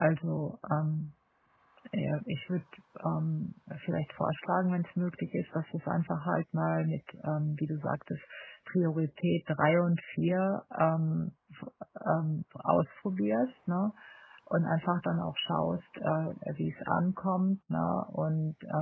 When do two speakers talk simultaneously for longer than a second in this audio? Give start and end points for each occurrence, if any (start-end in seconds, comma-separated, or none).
none